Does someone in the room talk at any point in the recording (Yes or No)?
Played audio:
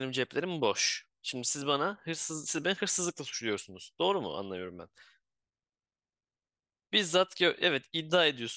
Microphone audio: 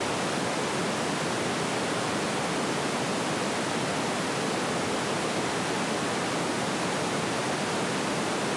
No